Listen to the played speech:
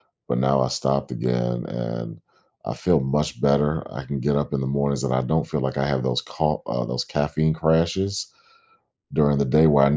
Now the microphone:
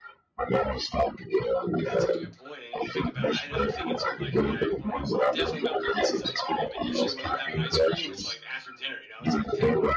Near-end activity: present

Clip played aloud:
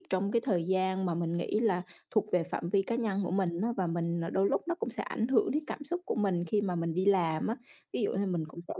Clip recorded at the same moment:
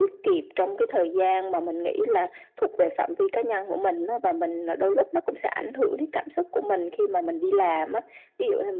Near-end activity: none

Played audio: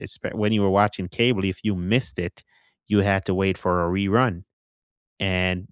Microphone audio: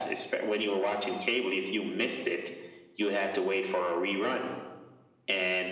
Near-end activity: none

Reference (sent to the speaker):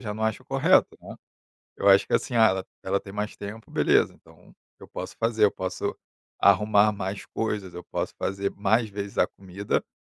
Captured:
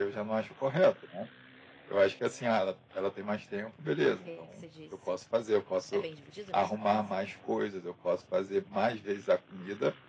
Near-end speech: present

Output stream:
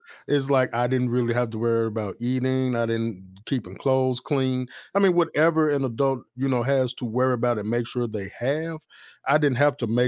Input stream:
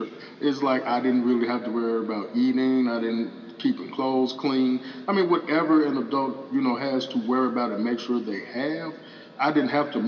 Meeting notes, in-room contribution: none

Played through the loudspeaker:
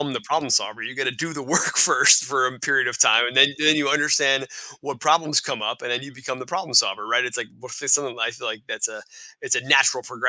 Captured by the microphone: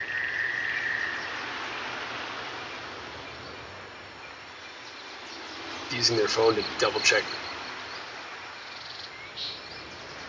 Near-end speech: present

